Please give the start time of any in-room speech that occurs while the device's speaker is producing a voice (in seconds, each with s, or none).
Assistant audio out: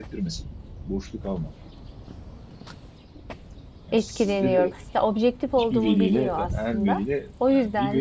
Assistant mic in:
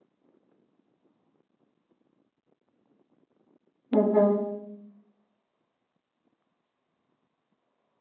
3.9 s